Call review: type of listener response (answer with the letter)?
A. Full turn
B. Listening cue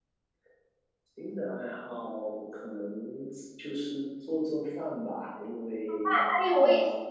A